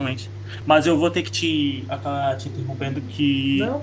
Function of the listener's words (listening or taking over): listening